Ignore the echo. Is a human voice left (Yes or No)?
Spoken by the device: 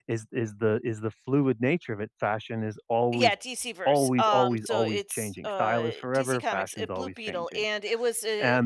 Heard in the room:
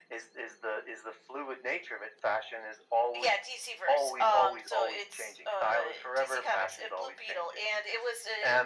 No